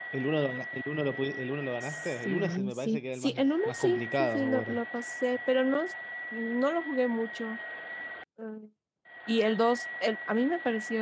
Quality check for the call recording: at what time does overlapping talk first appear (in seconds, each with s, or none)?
1.8 s